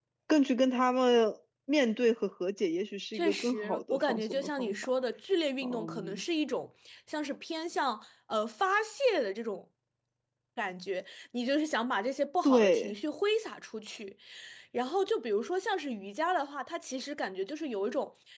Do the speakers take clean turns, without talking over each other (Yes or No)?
No